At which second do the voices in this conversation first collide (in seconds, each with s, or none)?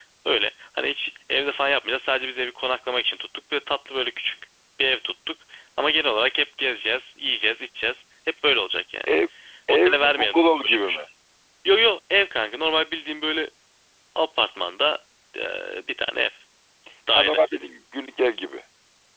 9.7 s